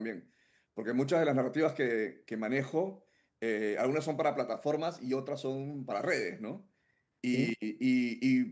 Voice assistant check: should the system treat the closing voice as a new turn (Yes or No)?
No